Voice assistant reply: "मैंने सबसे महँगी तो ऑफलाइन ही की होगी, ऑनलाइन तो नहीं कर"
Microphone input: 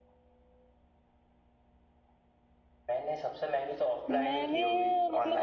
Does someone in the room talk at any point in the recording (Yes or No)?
Yes